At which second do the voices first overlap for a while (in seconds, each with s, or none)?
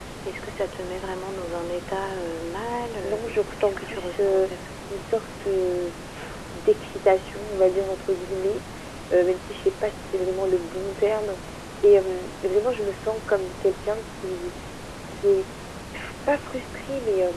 3.0 s